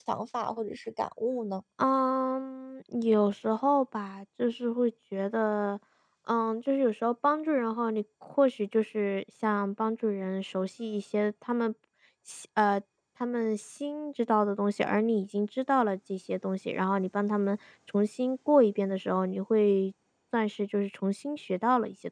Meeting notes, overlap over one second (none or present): none